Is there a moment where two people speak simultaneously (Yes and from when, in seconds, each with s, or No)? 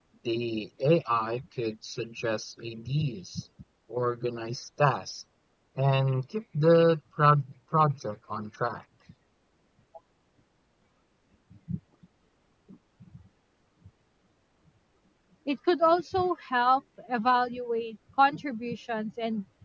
No